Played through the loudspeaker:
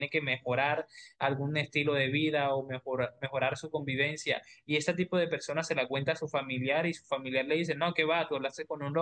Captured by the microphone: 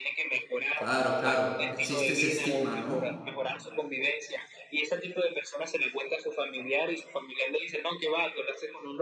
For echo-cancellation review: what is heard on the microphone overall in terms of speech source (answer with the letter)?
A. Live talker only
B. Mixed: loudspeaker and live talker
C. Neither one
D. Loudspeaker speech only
B